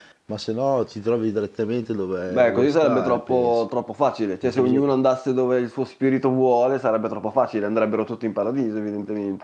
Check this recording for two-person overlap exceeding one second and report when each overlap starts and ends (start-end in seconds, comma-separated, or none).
2.3-3.6